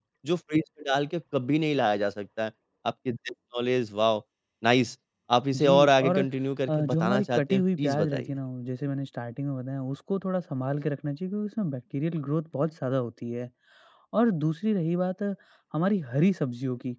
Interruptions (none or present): present